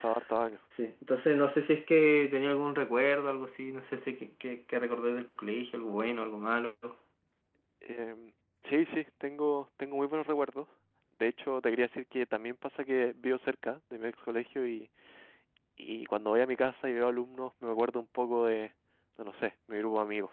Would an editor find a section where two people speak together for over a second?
No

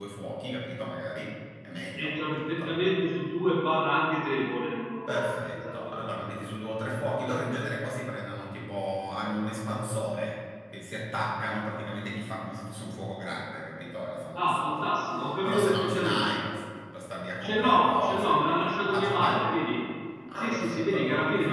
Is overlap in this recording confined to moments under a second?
No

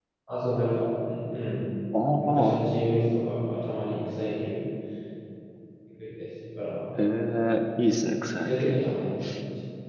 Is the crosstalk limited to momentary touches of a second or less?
Yes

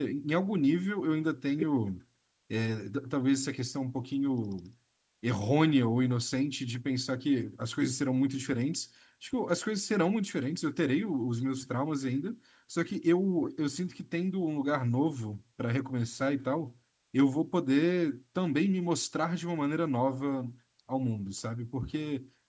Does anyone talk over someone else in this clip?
No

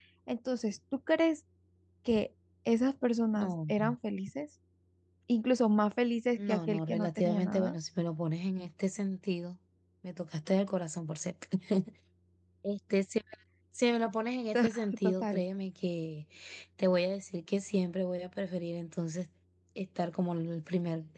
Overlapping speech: Yes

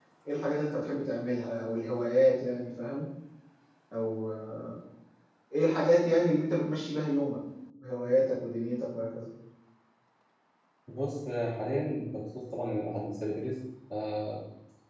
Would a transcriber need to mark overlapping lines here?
No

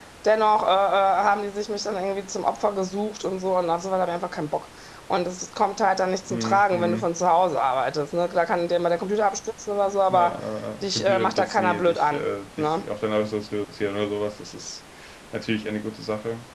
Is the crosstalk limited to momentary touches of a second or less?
No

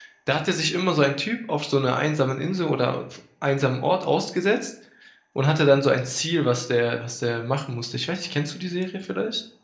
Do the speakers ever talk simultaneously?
No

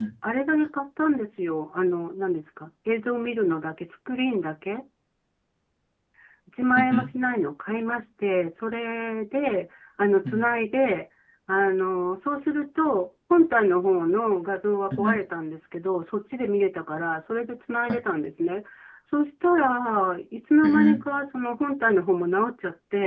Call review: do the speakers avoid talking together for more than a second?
Yes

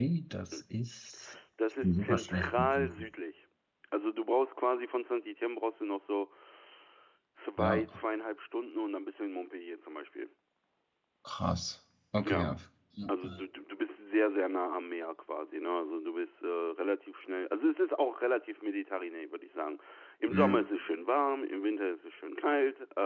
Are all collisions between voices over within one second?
No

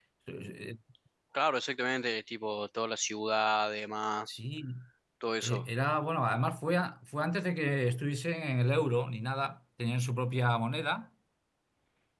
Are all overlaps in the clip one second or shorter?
Yes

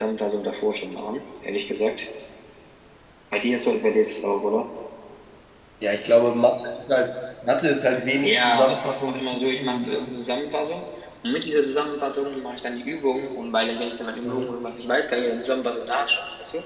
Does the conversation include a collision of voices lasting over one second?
Yes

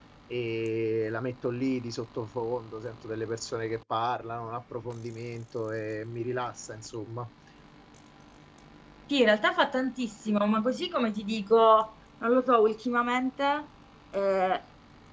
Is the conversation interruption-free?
Yes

